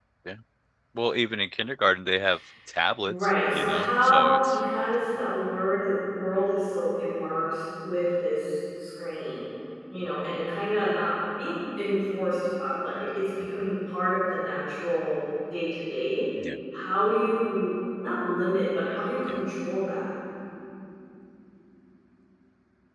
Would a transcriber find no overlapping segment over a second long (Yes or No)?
No